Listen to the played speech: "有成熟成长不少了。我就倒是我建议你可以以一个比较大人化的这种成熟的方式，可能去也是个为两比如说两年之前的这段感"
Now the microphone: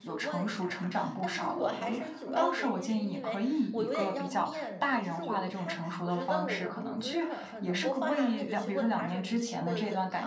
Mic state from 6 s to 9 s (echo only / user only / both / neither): both